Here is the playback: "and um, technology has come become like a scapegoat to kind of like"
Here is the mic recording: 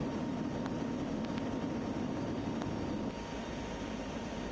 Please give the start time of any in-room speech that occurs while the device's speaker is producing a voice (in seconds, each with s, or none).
none